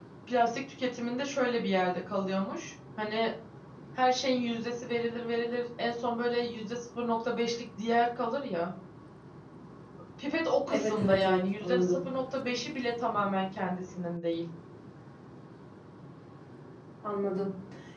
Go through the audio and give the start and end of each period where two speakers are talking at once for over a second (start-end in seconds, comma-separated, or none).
10.7-12.0